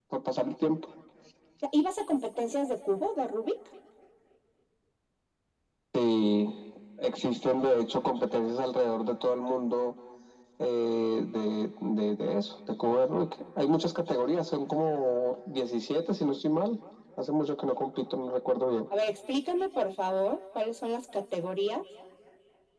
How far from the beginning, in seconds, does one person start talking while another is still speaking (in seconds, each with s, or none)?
none